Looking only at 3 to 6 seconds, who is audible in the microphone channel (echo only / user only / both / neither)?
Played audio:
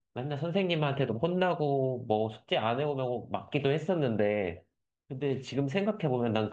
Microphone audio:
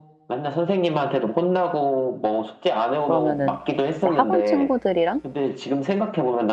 both